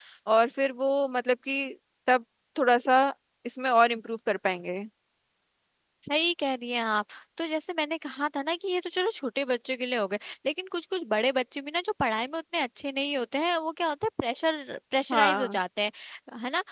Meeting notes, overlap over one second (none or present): none